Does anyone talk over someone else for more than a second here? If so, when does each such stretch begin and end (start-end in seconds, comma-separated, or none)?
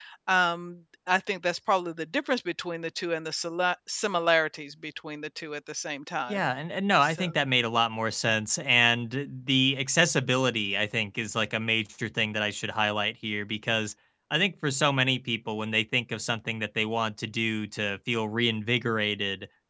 none